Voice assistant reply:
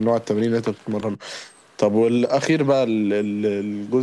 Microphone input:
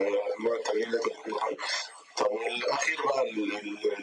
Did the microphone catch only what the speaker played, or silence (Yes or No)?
Yes